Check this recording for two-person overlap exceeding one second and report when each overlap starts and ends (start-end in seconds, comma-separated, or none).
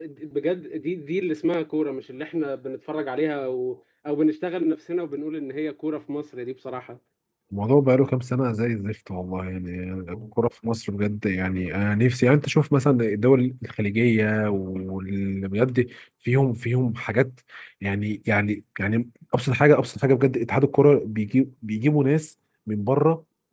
none